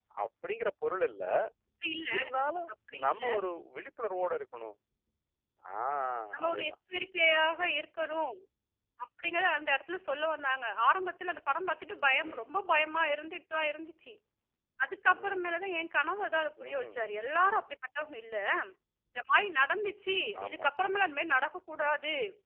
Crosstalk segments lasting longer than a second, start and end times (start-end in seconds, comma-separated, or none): none